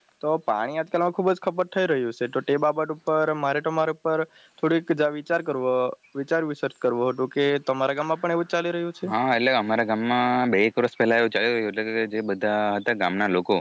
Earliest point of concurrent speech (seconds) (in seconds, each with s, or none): none